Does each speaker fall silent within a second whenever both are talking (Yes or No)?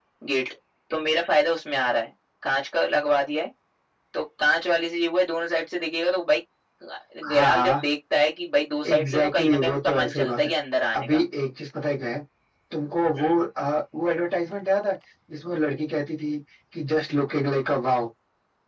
No